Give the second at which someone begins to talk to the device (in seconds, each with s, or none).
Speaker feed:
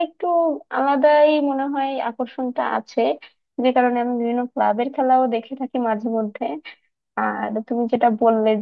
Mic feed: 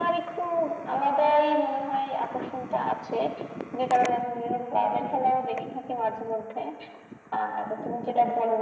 none